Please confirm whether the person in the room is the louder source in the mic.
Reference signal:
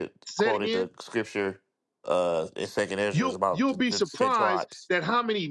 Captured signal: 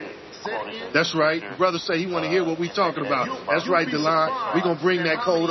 Yes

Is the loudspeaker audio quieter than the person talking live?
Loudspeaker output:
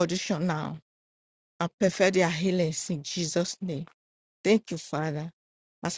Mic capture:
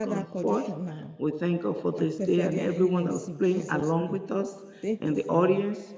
Yes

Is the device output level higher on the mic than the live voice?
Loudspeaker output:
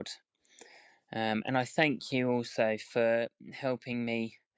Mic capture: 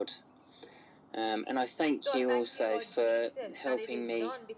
Yes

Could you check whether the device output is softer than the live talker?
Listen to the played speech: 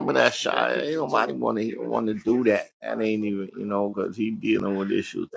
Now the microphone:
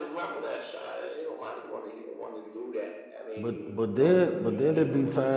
Yes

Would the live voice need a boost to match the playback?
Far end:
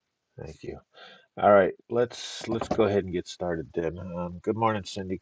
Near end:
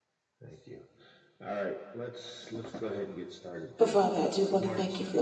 No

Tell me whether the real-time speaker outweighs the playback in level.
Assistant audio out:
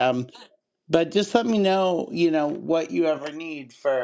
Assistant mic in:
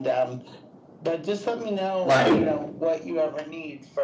Yes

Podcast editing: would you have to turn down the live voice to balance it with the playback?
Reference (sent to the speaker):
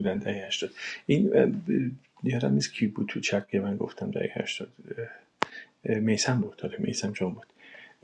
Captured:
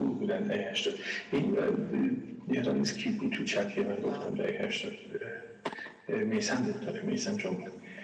No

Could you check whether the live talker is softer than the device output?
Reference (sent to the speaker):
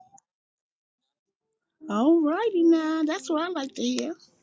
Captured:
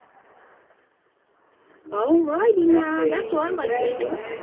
Yes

